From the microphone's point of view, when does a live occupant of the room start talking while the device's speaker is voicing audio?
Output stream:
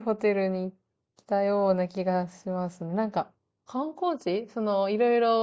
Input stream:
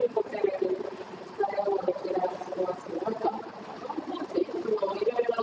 none

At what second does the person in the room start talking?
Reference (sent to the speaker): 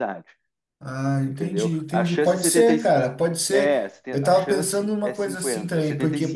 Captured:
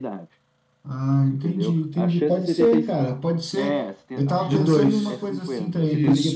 4.4 s

